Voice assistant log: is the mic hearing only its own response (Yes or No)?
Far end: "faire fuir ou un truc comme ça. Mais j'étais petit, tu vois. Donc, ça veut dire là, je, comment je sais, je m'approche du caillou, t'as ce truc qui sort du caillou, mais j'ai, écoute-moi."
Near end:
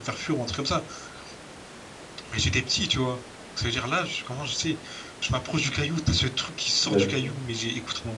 No